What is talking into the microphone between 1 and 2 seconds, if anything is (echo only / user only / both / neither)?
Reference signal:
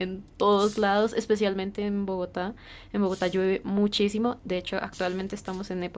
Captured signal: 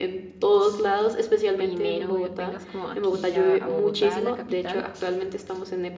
both